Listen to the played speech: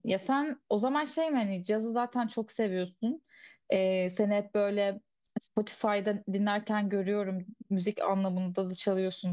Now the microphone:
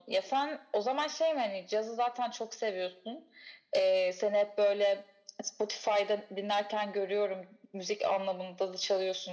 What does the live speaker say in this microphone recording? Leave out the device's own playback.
none

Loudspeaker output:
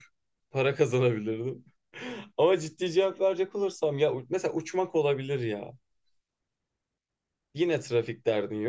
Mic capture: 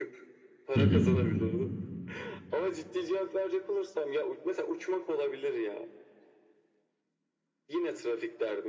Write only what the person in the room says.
Hı hı.

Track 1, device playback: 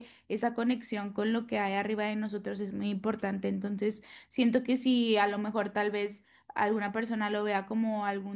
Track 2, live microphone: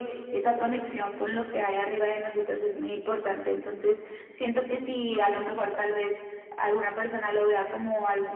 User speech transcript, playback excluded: none

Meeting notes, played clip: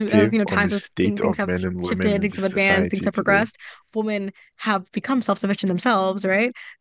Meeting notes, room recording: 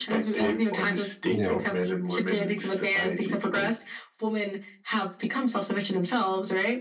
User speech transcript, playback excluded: Yeah.

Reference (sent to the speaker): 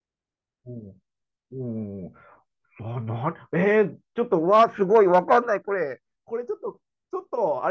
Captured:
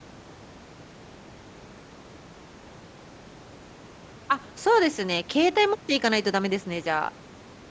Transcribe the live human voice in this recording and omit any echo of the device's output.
あ、そうですね。携帯持っていかないとダメですね、じゃあ。

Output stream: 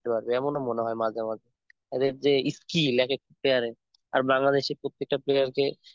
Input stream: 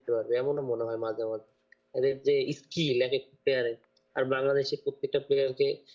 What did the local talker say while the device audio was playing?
none

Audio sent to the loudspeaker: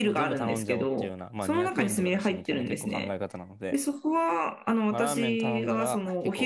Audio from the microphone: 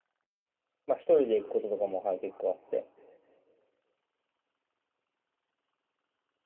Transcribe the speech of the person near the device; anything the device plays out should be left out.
まあ一人で行くこととかも、はい、結構あって。

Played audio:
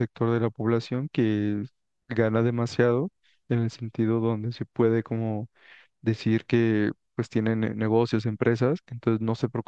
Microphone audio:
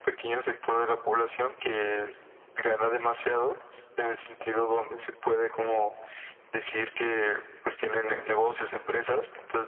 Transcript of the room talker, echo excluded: none

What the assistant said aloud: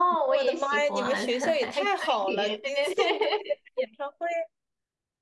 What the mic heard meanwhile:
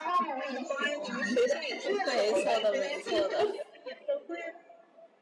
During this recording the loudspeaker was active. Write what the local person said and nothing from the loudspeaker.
没错的，没错的。

